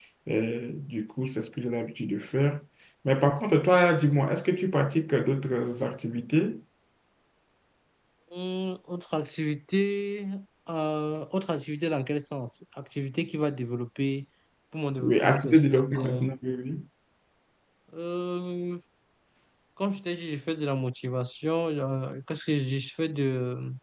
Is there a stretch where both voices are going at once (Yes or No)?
Yes